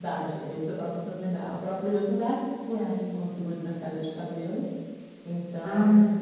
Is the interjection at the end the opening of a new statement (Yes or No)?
No